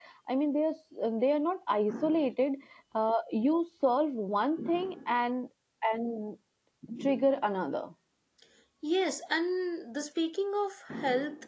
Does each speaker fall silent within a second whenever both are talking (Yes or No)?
Yes